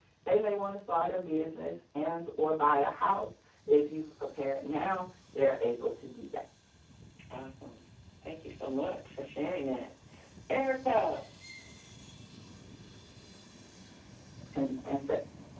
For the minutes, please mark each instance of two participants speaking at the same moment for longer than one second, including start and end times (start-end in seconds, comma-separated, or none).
none